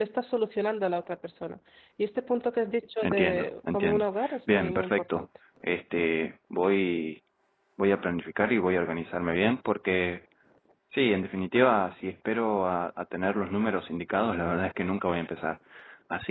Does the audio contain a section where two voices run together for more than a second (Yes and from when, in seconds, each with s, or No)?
Yes, from 3.0 s